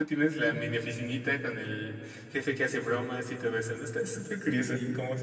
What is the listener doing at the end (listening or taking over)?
taking over